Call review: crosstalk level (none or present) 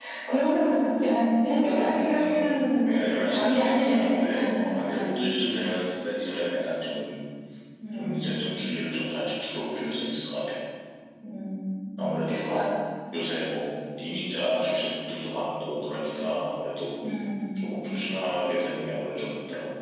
present